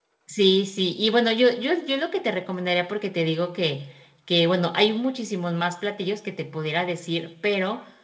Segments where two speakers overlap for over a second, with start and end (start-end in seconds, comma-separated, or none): none